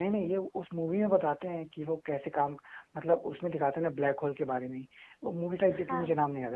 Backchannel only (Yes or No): Yes